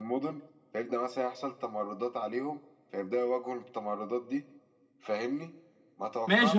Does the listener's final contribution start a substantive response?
Yes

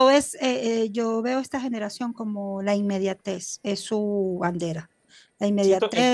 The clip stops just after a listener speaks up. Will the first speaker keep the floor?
Yes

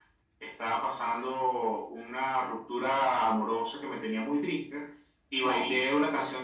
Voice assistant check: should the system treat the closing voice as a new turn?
No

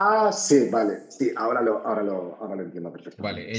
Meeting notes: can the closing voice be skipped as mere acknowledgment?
No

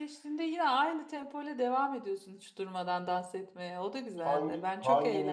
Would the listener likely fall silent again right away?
No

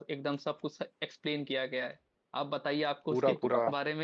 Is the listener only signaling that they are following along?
Yes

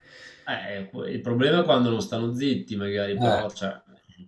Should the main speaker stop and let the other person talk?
No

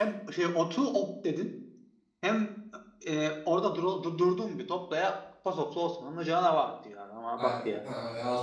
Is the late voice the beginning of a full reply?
Yes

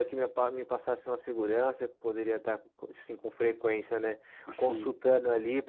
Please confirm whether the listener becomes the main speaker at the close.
No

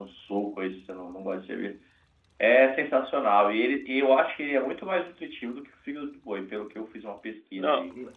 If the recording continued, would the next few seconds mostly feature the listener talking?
Yes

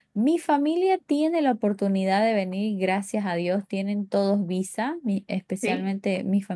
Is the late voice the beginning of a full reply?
No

